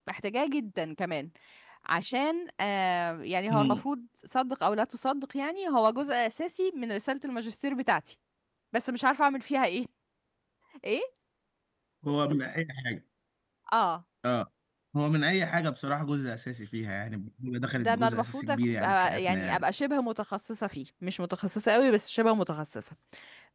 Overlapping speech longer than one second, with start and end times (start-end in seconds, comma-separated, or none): 17.8-19.6